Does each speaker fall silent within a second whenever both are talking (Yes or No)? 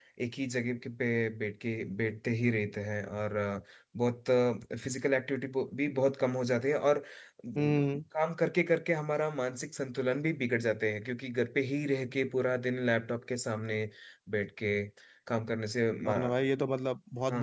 Yes